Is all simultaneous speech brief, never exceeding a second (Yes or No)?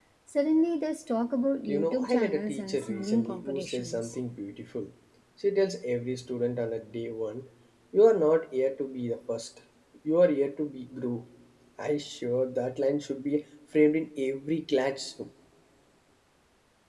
No